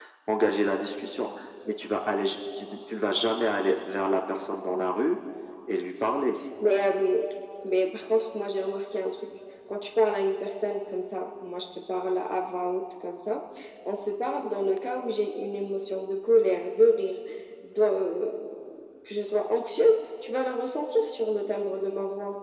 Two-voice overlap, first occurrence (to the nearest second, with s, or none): none